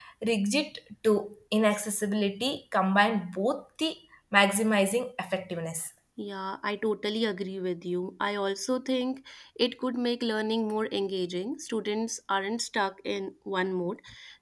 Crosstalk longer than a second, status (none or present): none